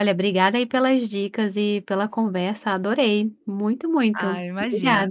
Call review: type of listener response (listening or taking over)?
taking over